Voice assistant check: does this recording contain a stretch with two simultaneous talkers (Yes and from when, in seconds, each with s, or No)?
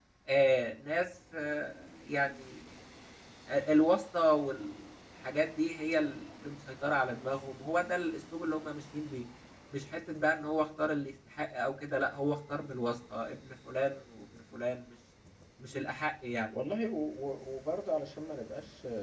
No